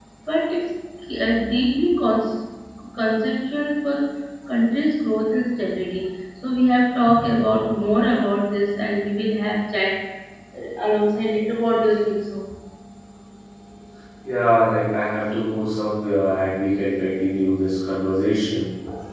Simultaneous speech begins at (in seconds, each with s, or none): none